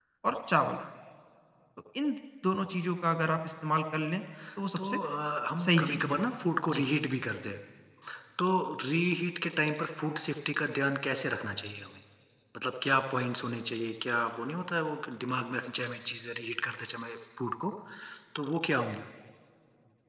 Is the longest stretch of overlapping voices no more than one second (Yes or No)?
No